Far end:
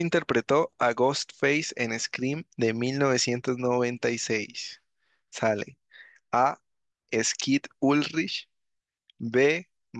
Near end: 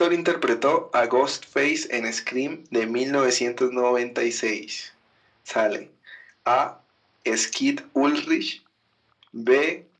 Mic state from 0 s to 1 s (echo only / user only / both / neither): echo only